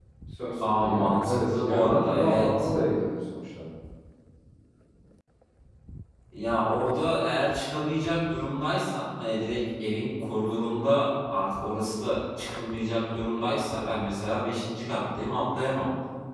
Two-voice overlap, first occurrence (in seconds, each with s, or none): 0.6 s